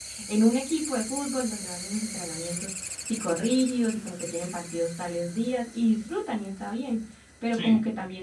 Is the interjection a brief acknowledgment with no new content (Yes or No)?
Yes